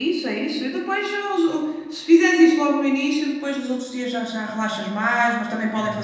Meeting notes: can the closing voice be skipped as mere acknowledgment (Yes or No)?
Yes